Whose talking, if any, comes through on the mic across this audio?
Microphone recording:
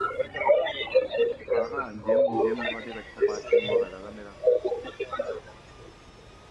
both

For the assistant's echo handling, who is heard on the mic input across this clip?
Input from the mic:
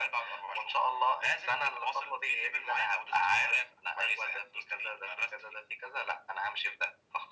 echo only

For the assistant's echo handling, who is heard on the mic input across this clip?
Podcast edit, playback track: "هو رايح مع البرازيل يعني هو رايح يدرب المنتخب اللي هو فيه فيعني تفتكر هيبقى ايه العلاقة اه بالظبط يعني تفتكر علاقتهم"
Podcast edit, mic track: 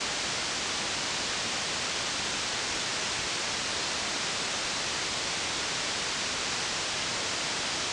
neither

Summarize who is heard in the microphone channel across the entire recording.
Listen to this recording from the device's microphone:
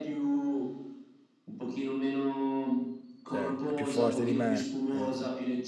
both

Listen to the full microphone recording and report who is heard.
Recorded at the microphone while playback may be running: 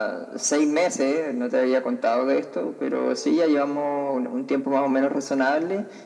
echo only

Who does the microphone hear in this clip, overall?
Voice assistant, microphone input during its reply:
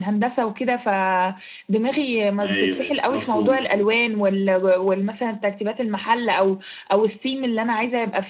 both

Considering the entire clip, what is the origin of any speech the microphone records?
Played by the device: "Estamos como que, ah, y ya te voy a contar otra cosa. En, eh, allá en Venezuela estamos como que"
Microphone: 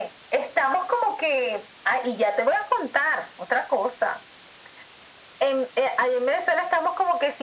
echo only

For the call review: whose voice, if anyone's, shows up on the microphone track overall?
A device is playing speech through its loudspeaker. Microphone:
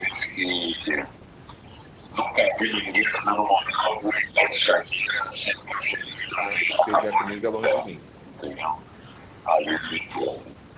both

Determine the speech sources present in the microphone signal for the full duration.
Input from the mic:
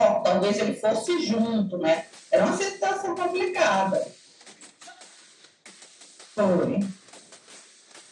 echo only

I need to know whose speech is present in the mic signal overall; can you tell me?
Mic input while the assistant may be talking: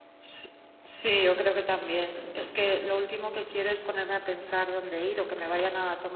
user only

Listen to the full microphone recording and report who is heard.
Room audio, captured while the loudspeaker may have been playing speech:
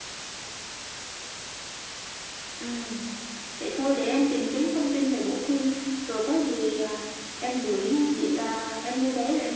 echo only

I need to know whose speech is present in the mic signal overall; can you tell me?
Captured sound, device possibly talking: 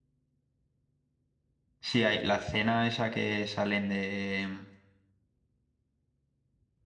user only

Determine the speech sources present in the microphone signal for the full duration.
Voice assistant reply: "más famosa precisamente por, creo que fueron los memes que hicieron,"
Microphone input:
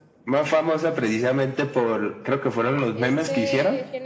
both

